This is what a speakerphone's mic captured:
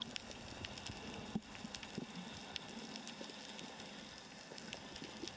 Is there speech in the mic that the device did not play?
No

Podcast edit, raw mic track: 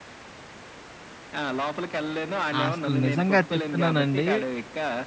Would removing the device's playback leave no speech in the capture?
No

